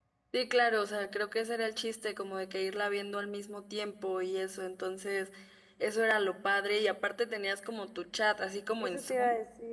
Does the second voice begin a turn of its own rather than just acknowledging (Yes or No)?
Yes